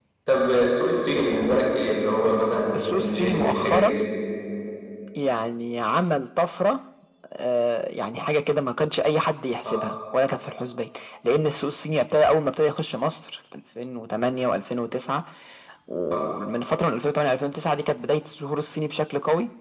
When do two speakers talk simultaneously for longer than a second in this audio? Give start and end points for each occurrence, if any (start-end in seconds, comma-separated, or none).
2.7-4.0